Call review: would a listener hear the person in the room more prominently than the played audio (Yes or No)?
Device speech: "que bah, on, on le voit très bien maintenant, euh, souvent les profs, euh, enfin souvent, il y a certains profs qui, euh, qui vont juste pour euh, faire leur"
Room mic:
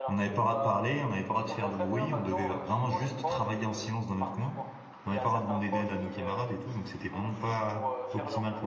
Yes